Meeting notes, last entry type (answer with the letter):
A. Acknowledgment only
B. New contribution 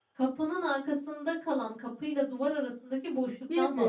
B